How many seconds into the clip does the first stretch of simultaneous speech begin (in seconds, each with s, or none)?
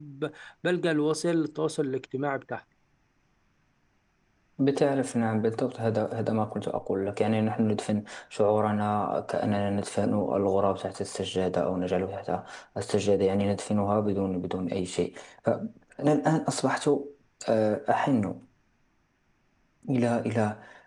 none